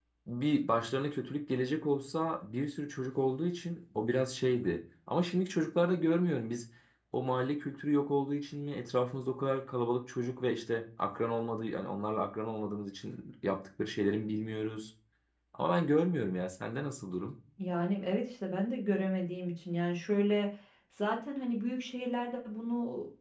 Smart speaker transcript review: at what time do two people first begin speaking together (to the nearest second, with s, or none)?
none